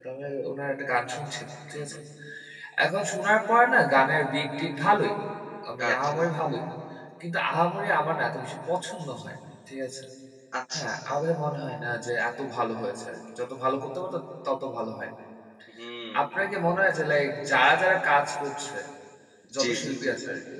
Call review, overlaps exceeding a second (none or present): none